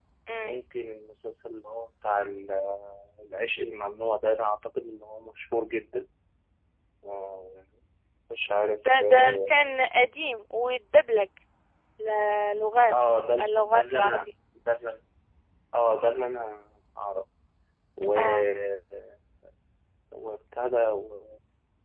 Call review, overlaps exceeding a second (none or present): present